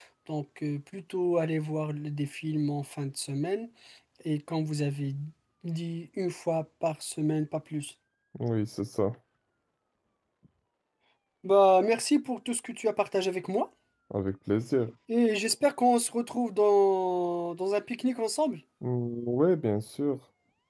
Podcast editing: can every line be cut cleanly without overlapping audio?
Yes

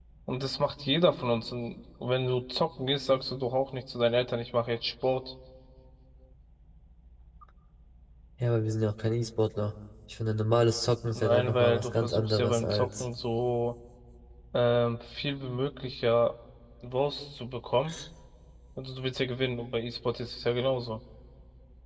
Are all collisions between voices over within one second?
No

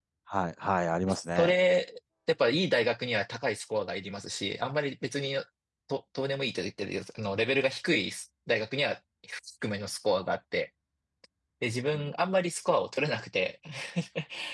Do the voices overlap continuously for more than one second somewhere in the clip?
No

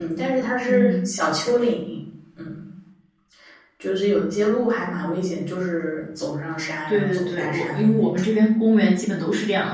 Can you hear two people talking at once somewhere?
Yes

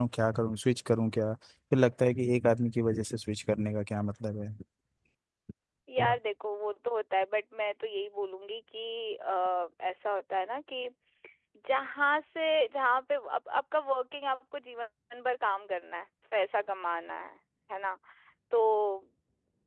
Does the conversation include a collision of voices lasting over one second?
No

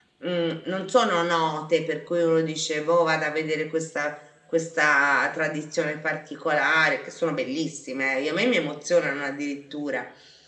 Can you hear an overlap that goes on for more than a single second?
No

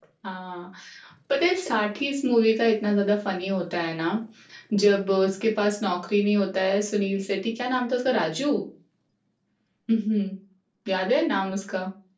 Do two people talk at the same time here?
No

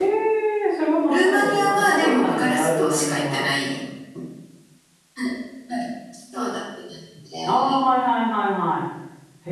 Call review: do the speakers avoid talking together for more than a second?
No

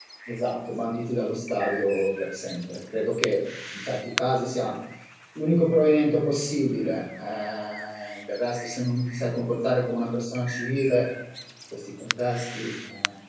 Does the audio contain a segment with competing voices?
No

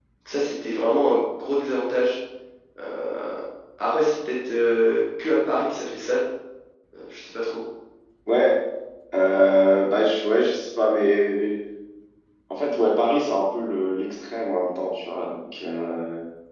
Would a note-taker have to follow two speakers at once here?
No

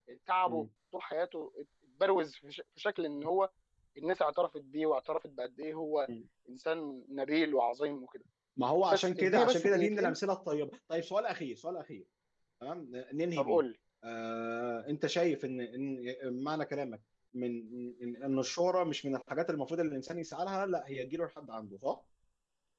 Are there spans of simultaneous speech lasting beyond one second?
Yes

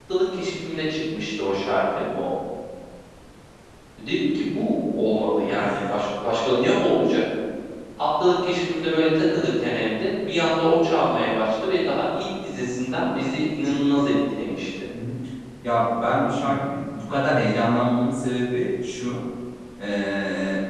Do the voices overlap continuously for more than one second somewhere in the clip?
No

